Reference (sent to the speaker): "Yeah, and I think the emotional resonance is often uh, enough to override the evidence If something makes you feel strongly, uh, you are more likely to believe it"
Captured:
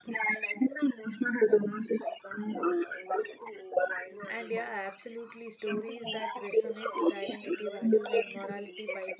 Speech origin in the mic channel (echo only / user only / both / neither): both